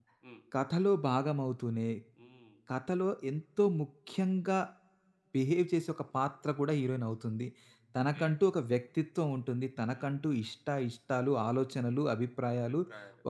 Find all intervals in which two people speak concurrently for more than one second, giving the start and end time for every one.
none

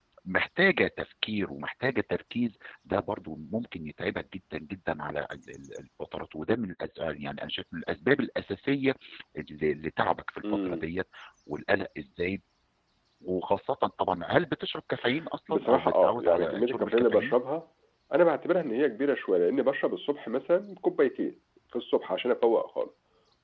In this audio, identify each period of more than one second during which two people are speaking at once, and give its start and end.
15.5-17.4

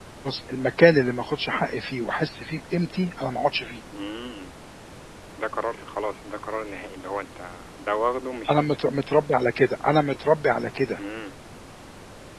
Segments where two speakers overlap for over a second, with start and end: none

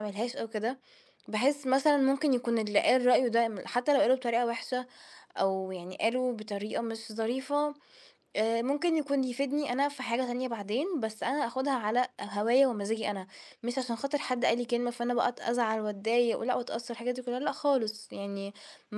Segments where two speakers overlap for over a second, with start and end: none

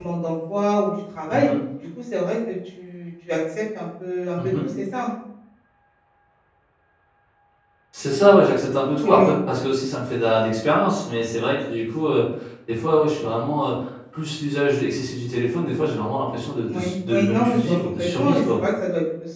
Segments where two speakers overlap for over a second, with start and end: 16.7-18.6

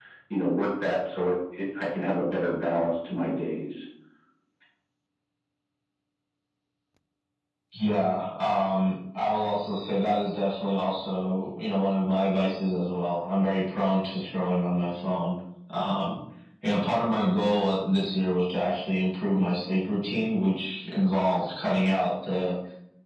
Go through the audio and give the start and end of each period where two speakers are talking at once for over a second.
none

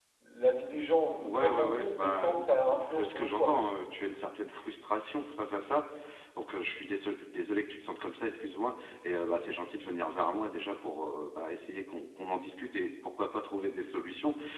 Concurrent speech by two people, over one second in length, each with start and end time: 1.2-3.6

